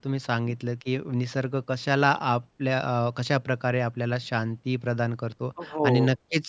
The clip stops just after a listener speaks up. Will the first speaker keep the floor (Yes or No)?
Yes